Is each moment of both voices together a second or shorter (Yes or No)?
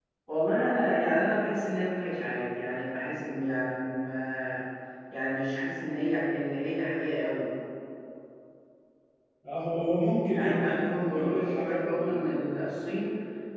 No